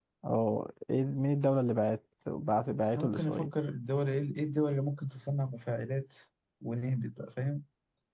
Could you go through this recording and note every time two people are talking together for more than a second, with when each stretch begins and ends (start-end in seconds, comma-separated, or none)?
none